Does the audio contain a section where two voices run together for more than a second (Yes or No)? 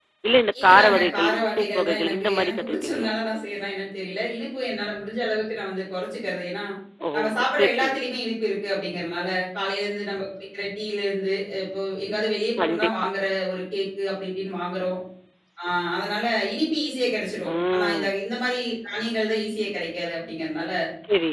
Yes